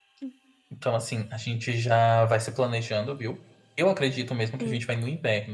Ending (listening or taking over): listening